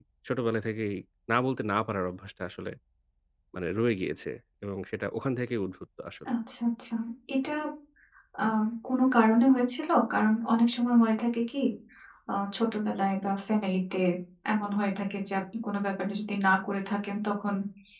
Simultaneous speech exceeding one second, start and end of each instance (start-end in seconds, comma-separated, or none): none